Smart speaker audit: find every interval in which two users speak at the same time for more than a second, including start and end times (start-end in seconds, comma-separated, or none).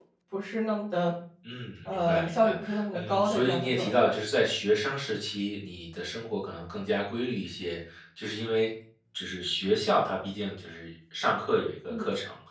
1.9-4.2